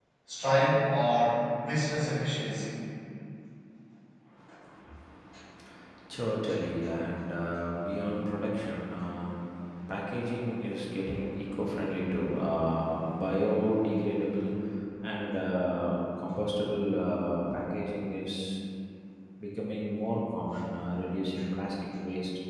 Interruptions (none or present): none